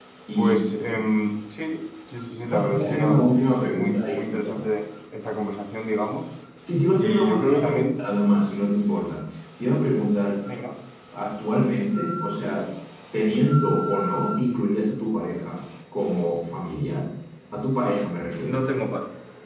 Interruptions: present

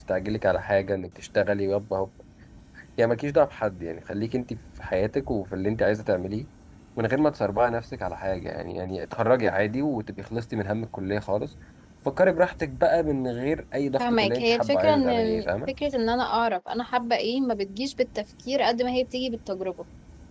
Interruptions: present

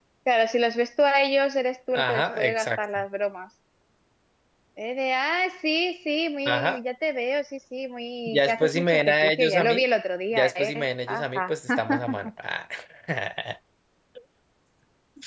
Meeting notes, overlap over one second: present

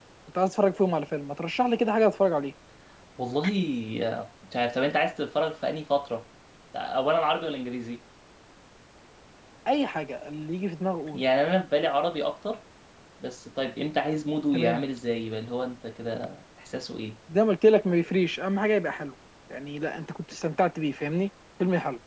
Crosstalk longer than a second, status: none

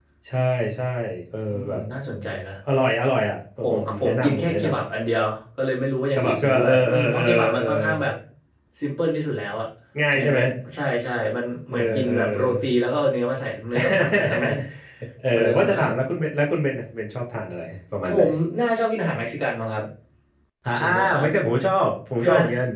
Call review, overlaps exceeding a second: present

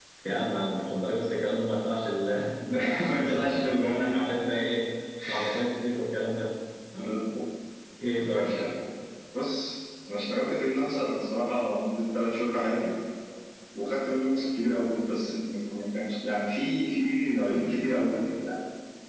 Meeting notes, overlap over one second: present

